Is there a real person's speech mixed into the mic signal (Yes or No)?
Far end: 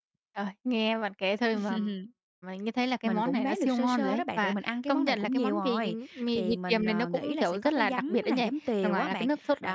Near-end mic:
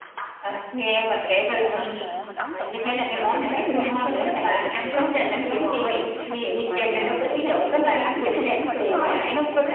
Yes